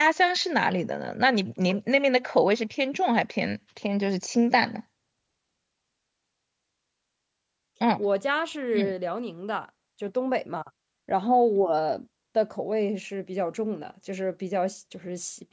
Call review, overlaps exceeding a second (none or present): none